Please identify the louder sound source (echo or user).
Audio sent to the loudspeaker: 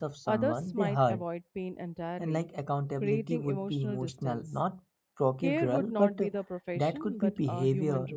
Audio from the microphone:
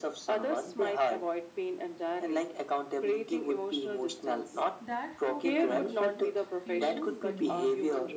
echo